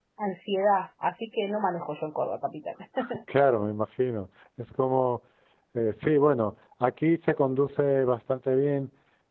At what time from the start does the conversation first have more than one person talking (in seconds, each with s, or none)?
none